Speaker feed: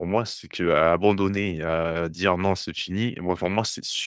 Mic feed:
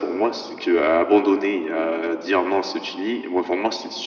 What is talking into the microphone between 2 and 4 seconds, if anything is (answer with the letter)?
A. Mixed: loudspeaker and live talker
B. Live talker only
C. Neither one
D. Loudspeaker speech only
D